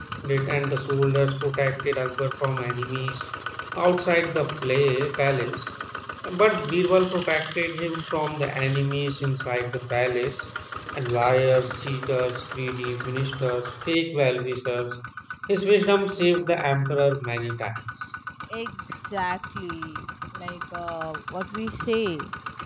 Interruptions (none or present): none